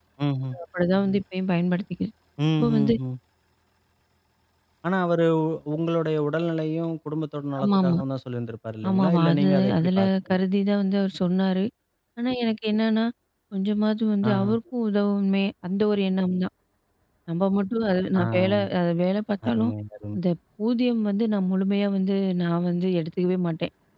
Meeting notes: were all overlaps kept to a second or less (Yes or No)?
No